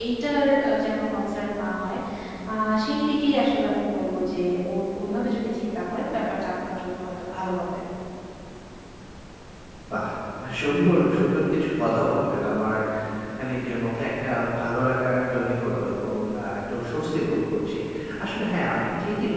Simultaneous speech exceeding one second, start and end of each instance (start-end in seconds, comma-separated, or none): none